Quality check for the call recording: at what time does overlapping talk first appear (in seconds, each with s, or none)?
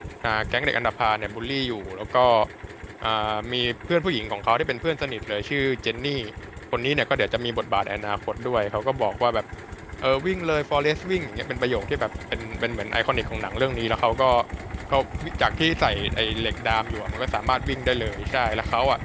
none